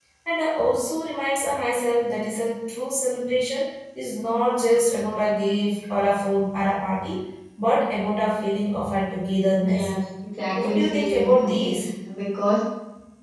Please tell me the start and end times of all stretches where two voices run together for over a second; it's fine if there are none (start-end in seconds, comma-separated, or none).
10.6-11.8